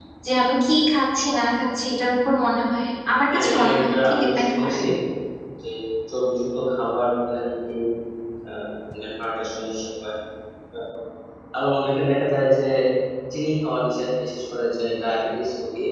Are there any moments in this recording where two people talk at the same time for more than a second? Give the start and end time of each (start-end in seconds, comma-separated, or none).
3.3-4.8